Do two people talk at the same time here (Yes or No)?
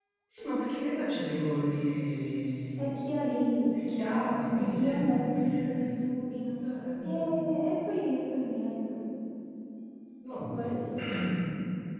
Yes